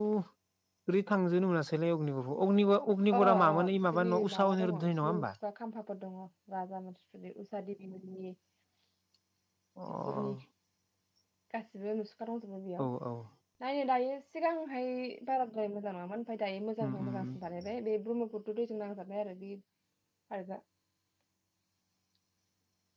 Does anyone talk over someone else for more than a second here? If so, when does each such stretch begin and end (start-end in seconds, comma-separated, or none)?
3.1-5.2